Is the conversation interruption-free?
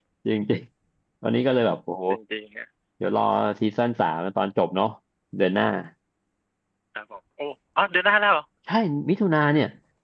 Yes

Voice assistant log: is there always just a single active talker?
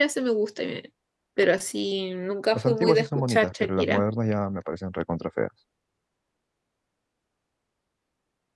No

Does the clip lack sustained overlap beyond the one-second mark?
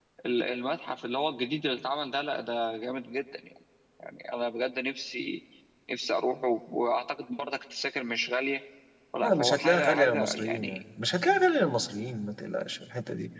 No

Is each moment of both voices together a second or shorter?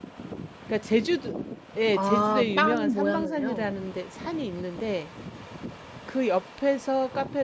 No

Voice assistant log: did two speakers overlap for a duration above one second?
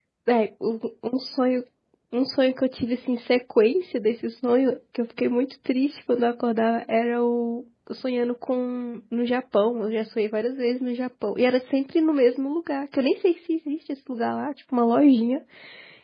No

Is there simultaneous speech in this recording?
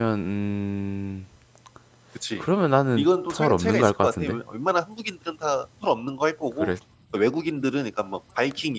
Yes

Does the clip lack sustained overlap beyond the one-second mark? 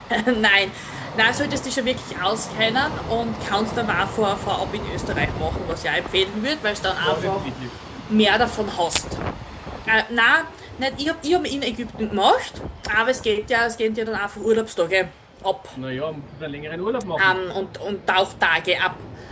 Yes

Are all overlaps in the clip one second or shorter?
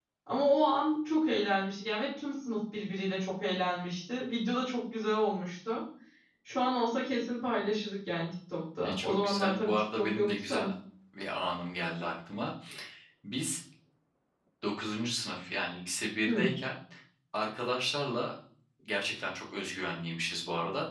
No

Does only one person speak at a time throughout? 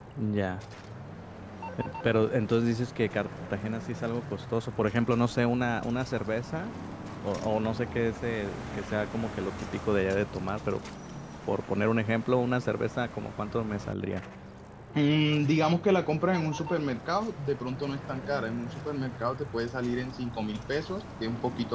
Yes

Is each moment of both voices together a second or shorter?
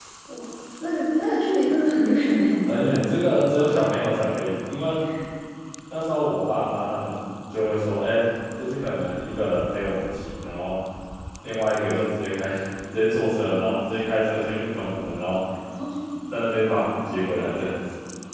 Yes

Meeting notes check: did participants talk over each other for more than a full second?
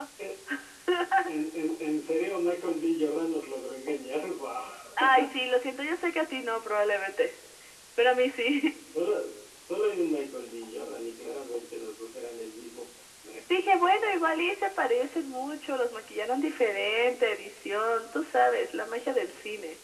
No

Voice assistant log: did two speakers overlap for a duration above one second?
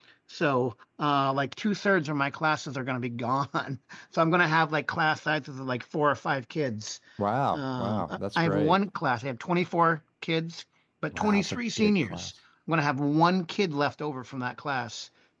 Yes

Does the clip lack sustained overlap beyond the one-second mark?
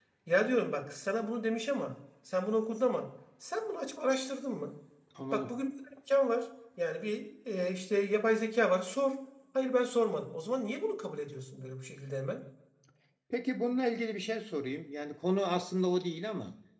Yes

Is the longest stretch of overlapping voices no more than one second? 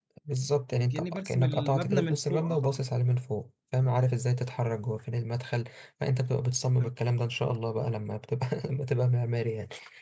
No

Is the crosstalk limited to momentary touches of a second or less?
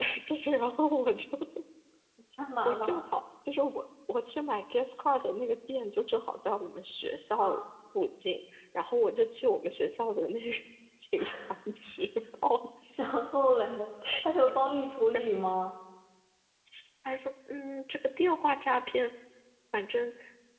Yes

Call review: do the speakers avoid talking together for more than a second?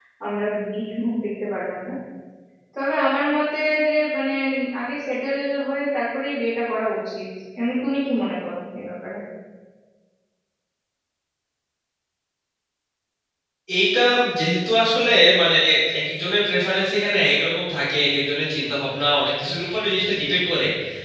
Yes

